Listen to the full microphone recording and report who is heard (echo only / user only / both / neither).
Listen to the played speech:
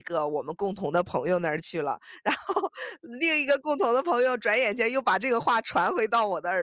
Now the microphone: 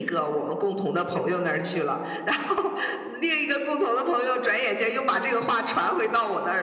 echo only